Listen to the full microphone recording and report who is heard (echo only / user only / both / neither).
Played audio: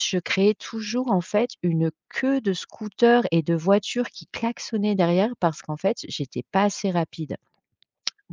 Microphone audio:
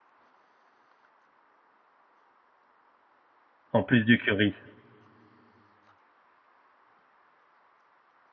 user only